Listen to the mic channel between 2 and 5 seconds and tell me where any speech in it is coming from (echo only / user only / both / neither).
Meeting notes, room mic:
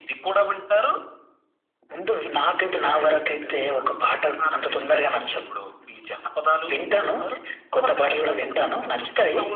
both